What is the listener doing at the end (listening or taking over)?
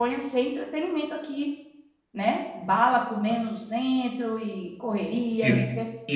taking over